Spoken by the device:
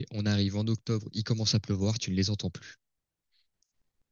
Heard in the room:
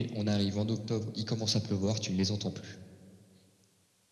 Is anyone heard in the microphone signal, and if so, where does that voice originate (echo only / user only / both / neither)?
echo only